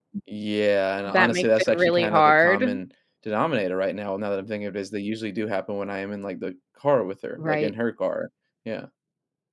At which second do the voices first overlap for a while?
1 s

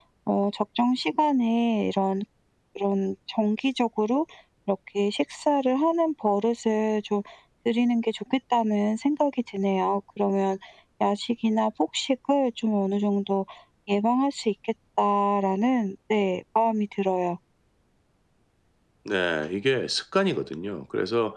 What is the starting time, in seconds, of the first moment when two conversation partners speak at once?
none

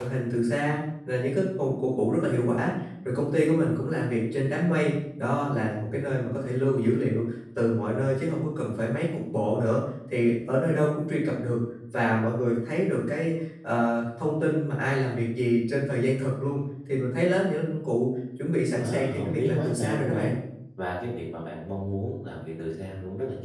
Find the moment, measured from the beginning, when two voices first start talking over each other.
19 s

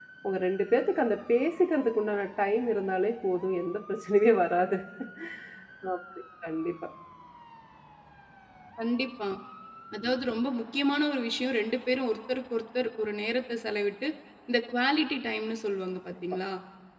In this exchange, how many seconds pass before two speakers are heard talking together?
none

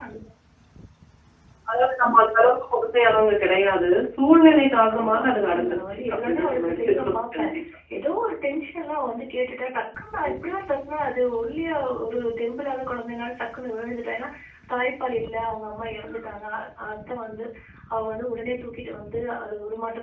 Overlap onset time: 5 s

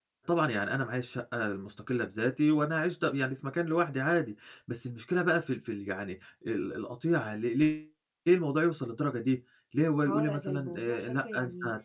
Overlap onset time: 10 s

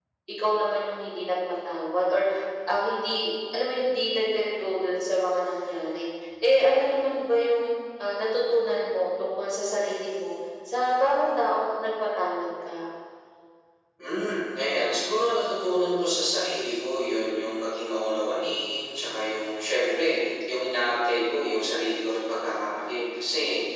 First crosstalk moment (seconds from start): none

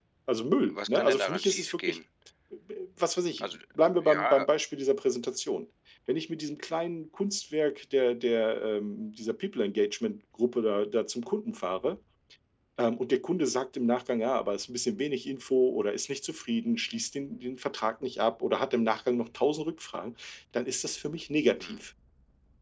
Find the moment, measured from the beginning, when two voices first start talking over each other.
1 s

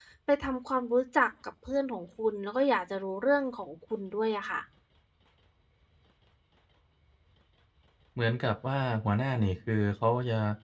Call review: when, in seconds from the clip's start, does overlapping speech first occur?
none

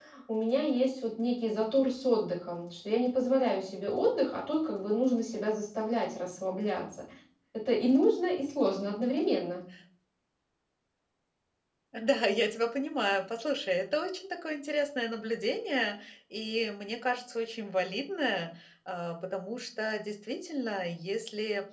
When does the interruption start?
none

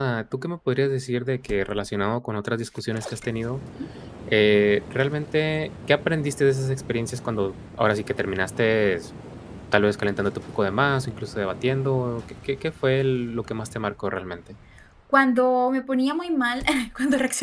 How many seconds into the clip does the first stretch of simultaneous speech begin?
none

